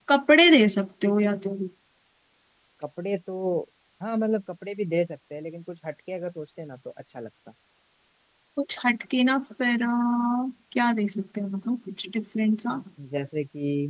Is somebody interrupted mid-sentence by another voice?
No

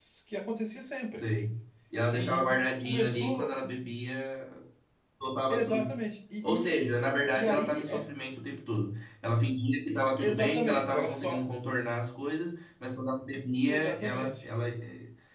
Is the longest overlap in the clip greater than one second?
Yes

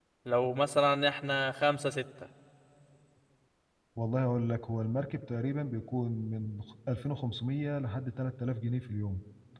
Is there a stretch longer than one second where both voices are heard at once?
No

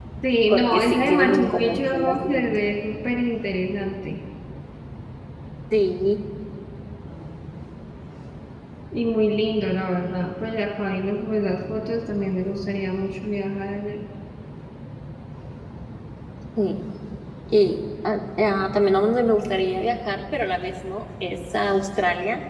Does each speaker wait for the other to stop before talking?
No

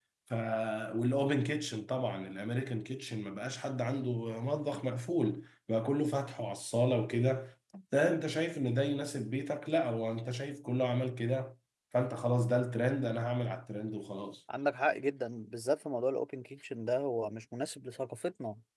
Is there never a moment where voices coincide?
Yes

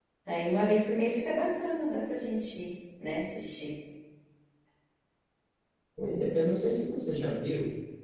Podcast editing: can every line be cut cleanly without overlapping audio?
Yes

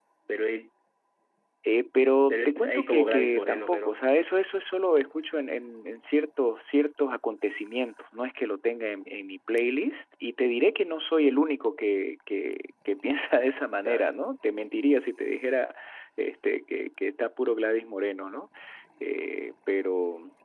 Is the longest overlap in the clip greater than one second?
Yes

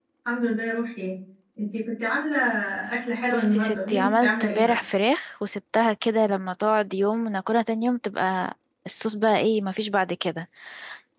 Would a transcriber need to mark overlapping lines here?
Yes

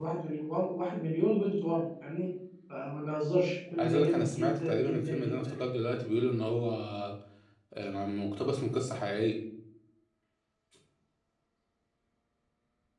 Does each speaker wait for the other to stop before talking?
No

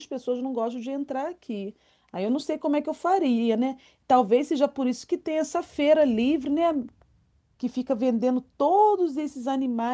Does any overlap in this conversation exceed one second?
No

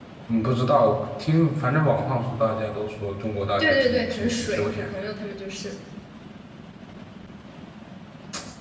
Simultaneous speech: Yes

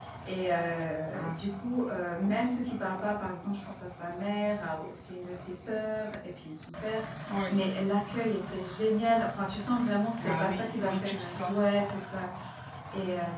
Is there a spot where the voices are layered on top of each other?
Yes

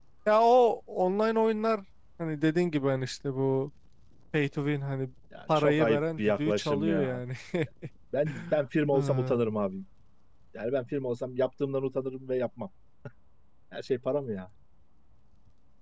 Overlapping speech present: Yes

